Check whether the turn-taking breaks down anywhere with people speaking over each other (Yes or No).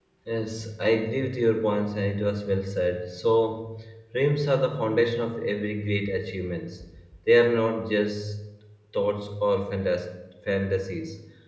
No